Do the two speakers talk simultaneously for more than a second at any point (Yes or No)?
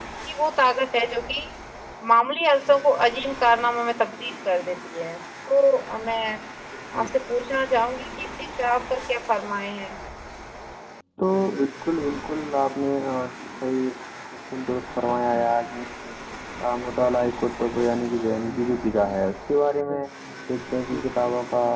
No